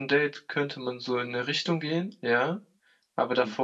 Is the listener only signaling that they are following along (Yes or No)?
Yes